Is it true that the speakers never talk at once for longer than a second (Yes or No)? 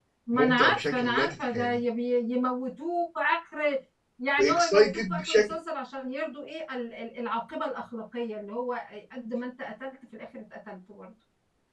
No